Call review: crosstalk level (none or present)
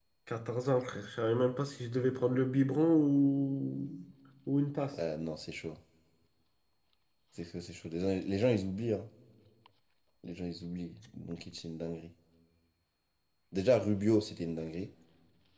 none